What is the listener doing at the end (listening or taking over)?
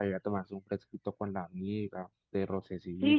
taking over